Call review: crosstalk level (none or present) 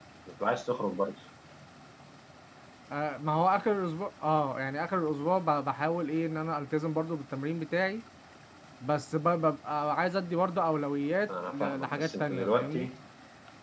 present